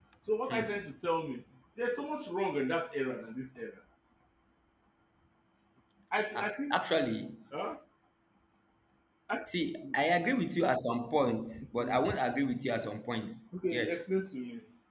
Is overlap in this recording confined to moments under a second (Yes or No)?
Yes